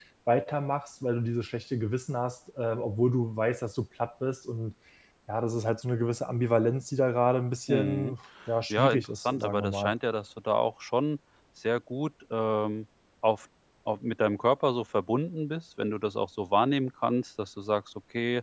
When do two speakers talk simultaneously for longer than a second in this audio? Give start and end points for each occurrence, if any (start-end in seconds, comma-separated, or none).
8.7-9.9